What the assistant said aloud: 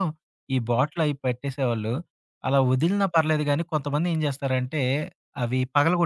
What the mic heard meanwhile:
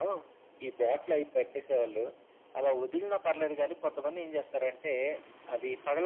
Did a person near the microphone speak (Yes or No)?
No